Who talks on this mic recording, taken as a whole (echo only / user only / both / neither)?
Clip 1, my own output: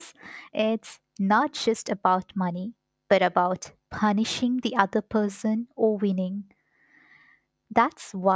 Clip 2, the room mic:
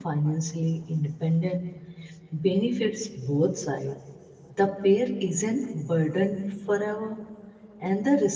user only